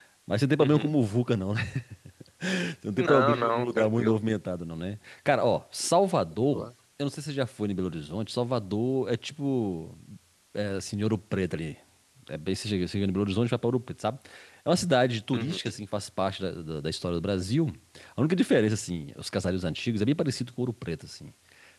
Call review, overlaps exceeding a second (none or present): present